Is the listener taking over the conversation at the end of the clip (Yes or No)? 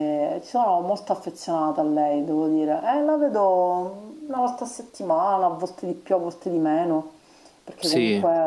No